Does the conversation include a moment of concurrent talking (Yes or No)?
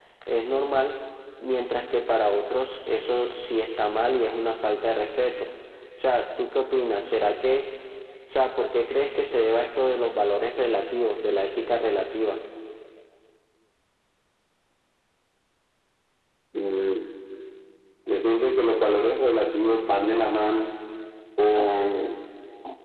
No